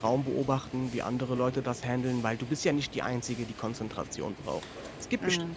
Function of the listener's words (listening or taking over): listening